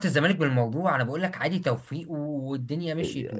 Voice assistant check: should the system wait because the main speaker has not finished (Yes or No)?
No